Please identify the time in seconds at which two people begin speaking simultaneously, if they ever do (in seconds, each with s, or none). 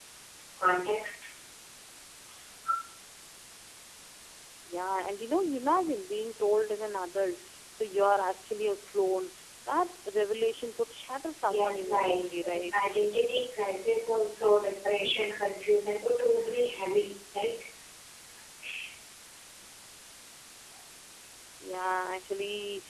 11.5 s